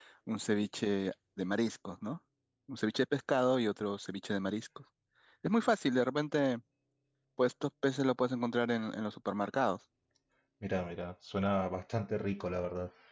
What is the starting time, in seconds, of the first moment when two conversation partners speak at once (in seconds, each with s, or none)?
none